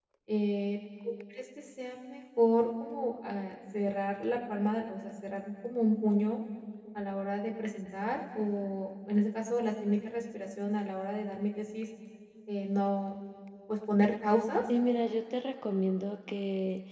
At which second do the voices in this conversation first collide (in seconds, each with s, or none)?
none